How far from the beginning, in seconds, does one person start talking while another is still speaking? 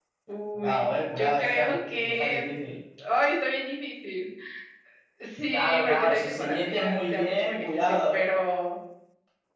0.6 s

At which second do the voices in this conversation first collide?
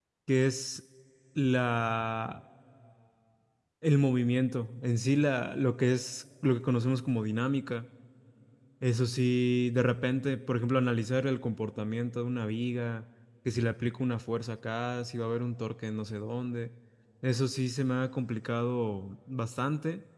none

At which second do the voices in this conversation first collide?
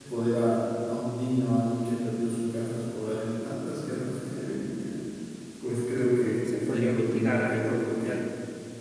6.4 s

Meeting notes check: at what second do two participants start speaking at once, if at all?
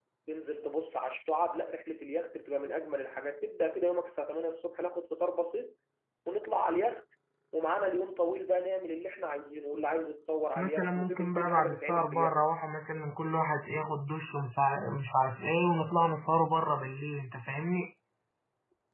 10.6 s

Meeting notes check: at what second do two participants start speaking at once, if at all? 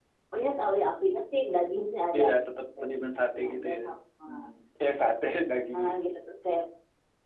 2.1 s

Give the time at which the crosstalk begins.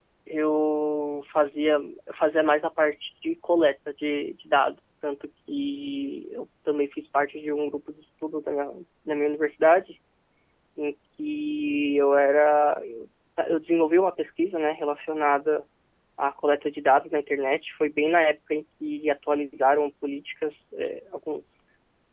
none

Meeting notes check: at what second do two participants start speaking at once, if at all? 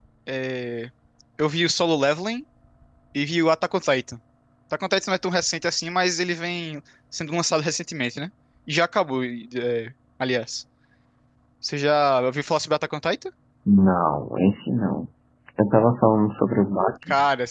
none

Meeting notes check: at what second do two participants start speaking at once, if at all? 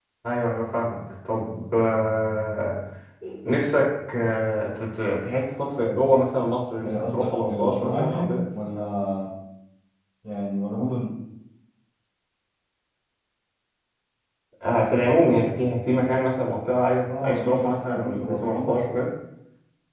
6.8 s

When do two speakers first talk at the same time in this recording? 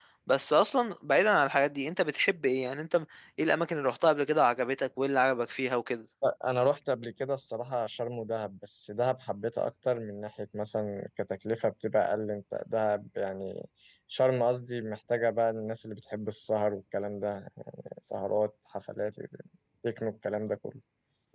none

